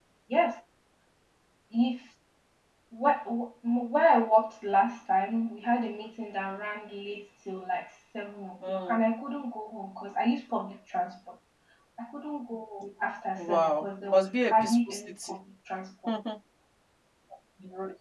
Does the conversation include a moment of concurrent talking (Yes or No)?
Yes